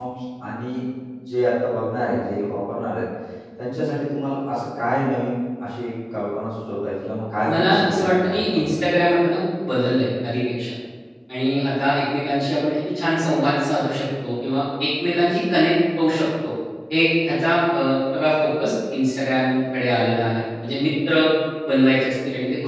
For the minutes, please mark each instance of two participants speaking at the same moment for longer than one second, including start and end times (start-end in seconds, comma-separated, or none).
7.5-8.8